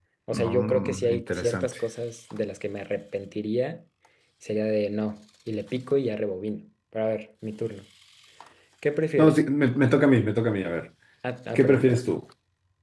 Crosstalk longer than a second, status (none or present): present